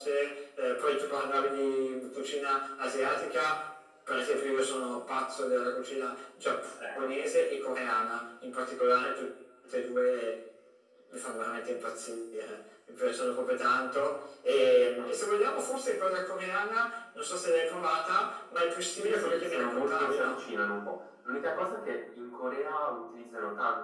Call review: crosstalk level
present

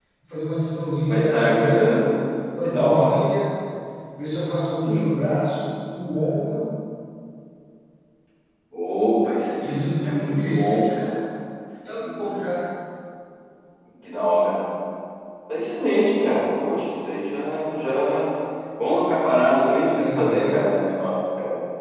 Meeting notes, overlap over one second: present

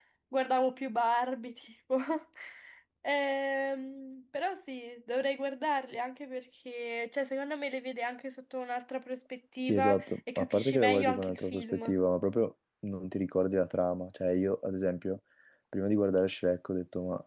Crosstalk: present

